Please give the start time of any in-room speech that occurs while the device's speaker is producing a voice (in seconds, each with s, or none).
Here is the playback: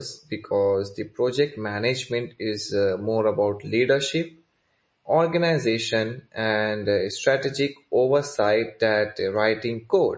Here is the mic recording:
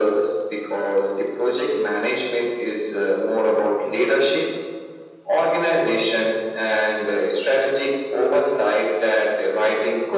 none